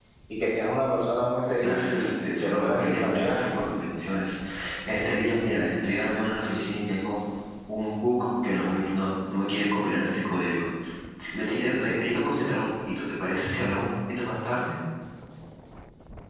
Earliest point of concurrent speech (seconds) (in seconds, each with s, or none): 1.6 s